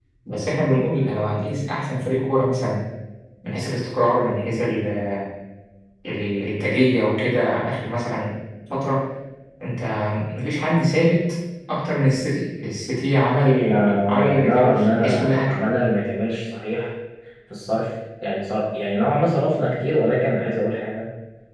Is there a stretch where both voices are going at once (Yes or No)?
Yes